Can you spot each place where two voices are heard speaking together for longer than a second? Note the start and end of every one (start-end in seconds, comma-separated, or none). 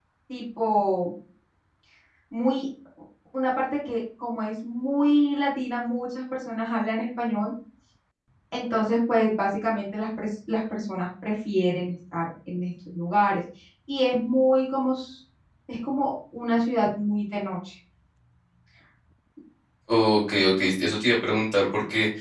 none